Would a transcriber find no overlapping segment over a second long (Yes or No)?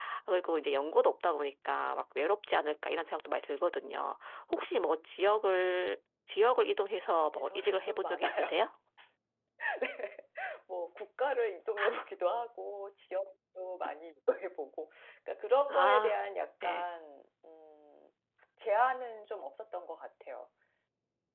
No